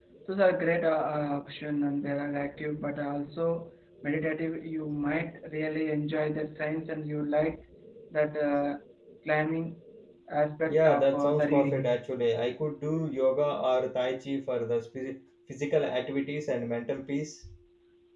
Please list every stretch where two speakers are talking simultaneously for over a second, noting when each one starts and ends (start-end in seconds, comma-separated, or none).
10.7-11.9